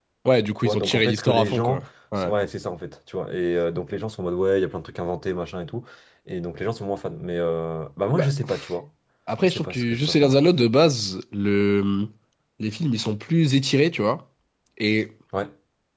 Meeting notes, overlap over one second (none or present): present